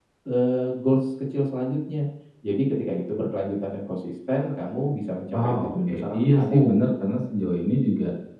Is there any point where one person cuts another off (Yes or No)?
Yes